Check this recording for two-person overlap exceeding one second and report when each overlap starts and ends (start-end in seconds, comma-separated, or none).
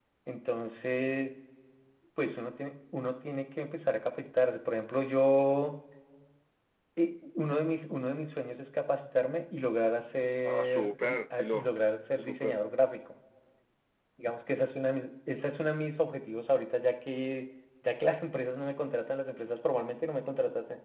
10.4-11.7